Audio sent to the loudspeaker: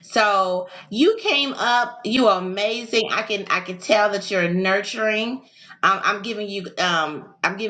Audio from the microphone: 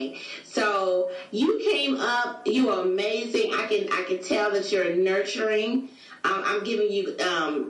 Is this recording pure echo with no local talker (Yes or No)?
Yes